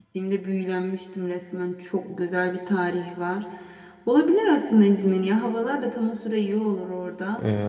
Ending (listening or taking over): taking over